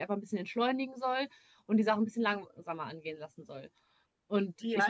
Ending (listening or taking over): taking over